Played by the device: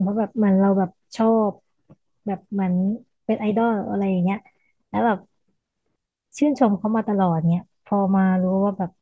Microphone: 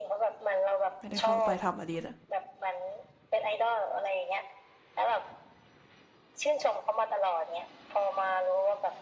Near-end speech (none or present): present